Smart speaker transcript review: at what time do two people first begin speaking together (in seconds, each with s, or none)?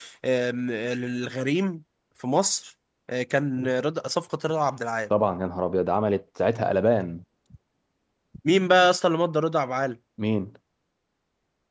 none